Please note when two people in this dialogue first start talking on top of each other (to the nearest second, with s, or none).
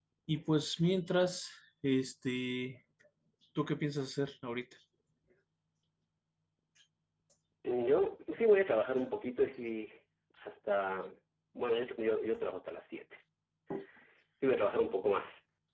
none